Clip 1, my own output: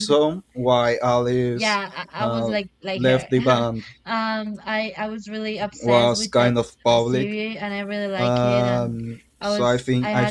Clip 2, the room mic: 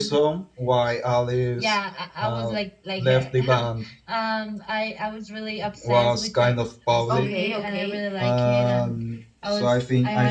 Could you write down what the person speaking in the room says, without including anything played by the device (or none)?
Okay, okay.